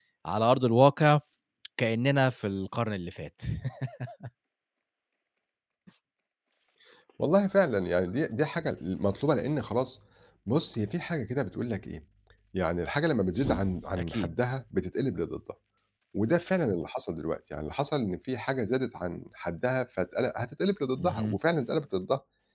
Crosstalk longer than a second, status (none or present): none